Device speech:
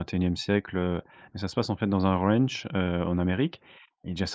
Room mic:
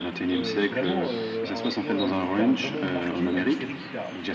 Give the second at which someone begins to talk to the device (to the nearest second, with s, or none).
0 s